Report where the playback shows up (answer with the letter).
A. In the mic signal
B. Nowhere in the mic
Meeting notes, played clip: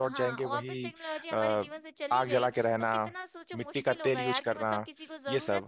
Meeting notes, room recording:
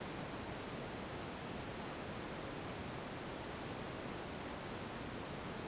B